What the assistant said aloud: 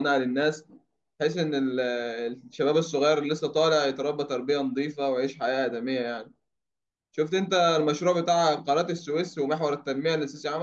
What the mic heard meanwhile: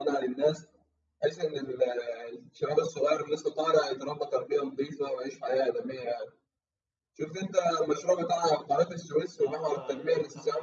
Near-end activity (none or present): present